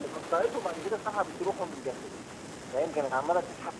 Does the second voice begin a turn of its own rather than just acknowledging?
No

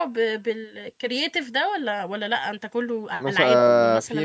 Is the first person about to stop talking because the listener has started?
Yes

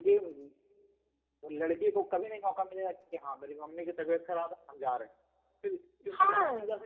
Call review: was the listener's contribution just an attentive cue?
Yes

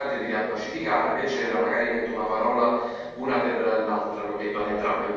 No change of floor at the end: No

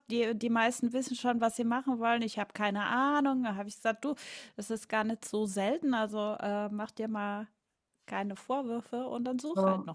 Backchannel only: No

